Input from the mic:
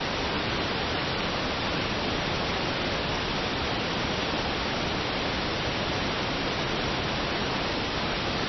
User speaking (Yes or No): No